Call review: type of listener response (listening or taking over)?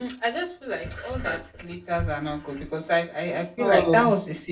listening